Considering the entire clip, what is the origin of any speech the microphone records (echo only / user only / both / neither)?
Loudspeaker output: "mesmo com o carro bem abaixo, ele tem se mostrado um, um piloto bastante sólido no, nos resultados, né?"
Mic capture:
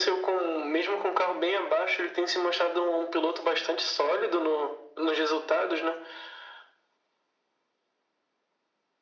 echo only